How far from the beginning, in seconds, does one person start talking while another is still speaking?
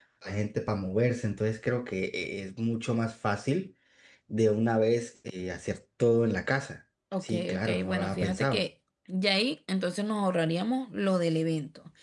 7.1 s

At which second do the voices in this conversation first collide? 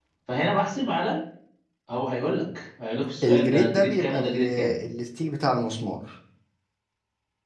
3.2 s

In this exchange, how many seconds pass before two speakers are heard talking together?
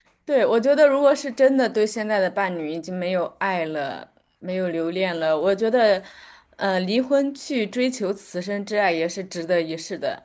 none

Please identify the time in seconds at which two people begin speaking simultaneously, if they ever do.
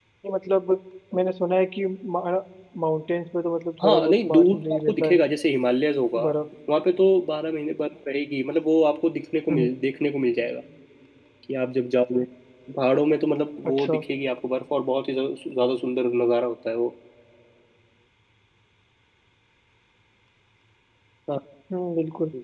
3.8 s

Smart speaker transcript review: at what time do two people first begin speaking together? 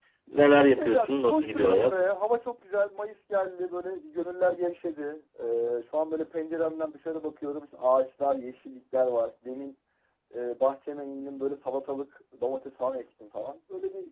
0.8 s

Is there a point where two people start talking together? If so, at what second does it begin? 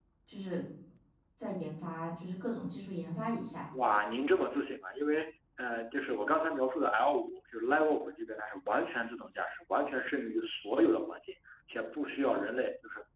none

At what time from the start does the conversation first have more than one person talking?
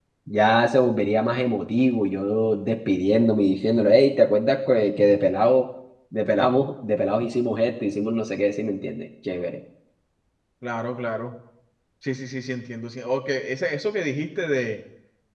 none

